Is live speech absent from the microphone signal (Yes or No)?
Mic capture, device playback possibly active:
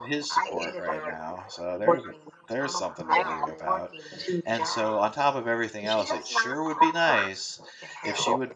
No